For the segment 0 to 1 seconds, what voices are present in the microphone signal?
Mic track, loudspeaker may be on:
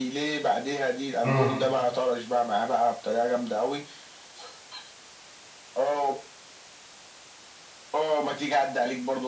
echo only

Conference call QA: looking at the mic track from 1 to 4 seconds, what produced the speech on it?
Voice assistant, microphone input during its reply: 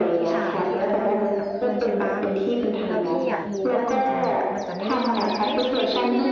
both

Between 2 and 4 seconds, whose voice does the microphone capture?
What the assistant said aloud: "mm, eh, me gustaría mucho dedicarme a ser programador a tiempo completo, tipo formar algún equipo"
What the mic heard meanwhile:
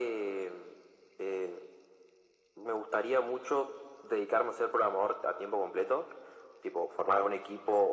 echo only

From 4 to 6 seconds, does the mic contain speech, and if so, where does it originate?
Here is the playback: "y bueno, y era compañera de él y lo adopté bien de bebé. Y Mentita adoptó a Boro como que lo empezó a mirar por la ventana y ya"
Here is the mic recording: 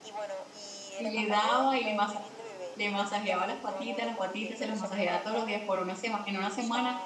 both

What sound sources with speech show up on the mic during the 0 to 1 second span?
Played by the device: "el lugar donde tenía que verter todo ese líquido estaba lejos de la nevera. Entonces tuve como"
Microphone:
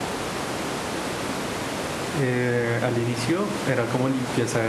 neither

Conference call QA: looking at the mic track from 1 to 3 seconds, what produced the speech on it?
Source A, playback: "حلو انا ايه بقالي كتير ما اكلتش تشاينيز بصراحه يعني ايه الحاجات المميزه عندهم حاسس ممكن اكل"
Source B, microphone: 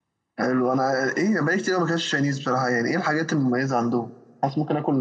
echo only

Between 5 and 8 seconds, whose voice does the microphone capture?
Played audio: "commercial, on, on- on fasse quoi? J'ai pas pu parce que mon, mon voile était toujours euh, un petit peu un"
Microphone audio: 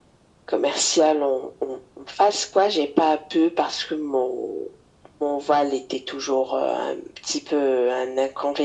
echo only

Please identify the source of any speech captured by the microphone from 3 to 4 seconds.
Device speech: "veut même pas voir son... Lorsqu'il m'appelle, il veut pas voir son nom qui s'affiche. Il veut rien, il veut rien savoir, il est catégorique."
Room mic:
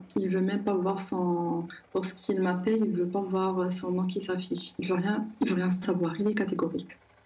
echo only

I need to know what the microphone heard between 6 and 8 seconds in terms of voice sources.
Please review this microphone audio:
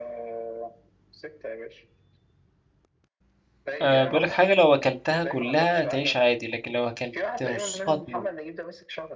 both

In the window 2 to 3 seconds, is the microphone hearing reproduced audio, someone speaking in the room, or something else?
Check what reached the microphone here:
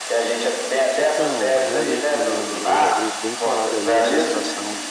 both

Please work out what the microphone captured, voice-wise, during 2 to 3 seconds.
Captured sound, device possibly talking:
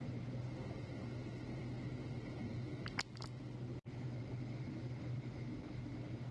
neither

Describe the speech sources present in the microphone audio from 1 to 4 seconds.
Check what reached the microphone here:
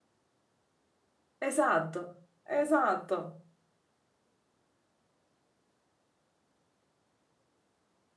user only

